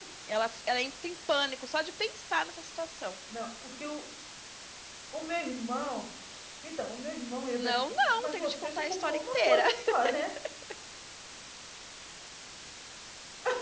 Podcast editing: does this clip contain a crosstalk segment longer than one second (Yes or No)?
Yes